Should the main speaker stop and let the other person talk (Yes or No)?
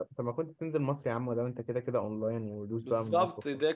Yes